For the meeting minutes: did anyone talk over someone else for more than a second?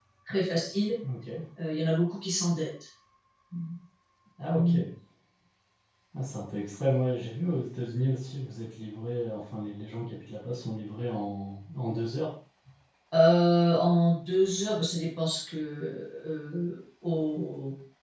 No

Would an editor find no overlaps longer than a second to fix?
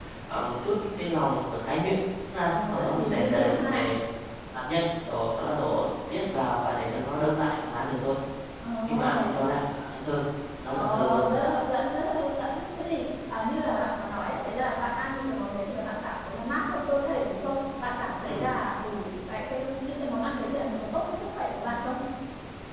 No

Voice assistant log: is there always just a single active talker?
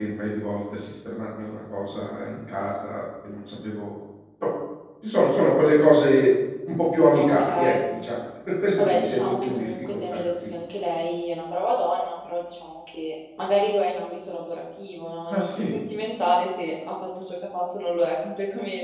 No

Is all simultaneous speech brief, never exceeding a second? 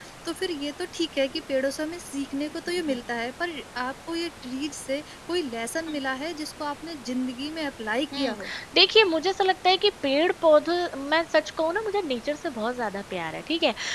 Yes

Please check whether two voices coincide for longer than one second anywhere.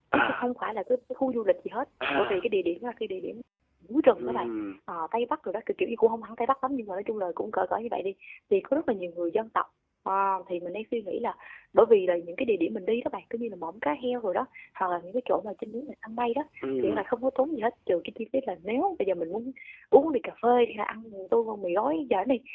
No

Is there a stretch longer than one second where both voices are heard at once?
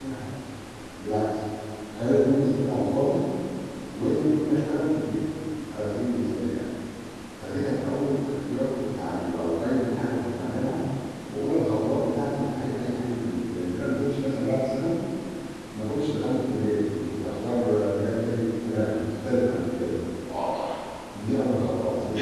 No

